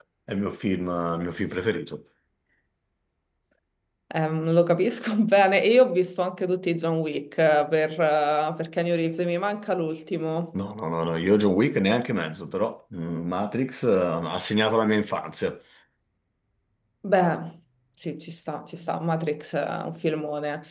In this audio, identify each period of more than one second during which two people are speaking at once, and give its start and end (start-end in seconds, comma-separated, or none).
none